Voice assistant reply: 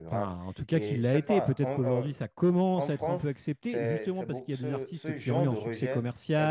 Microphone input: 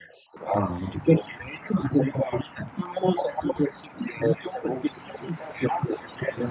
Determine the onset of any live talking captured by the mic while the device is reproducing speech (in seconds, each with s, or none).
none